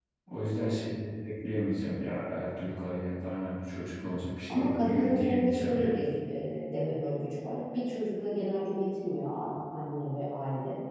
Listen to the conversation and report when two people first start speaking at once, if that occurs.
4.5 s

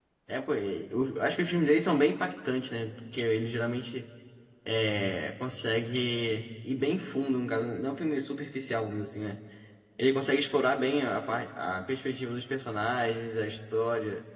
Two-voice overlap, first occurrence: none

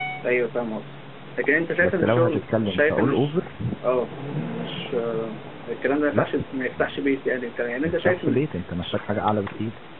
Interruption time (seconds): 1.8 s

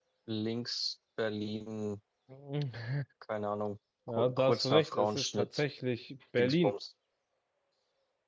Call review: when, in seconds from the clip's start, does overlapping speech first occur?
4.1 s

